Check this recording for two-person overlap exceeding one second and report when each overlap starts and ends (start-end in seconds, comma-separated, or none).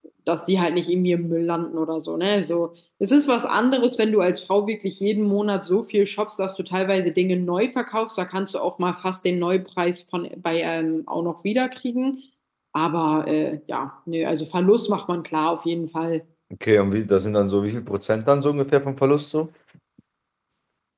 none